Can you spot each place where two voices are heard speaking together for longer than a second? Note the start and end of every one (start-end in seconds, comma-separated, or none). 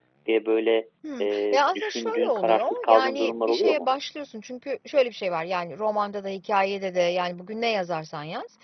1.2-3.8